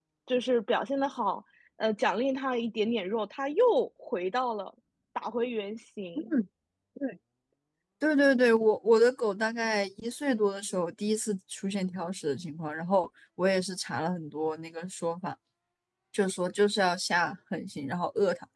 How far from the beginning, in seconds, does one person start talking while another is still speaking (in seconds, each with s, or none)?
none